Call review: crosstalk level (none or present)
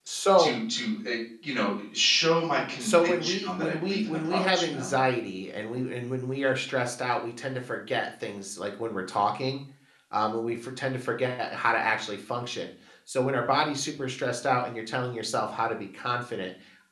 present